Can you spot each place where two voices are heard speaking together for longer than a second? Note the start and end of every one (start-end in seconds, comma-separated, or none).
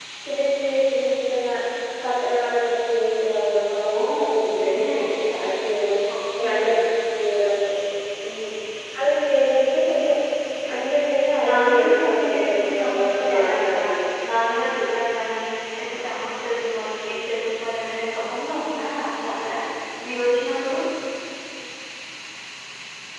4.0-5.2, 11.5-13.8